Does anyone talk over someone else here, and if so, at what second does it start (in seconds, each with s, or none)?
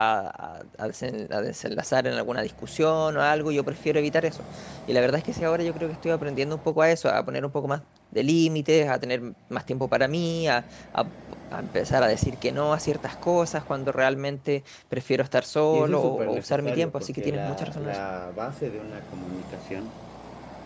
15.7 s